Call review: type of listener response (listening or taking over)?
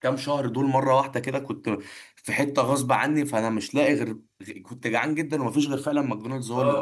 taking over